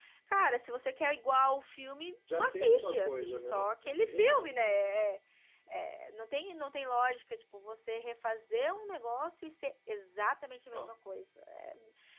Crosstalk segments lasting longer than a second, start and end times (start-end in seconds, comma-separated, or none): 2.3-3.7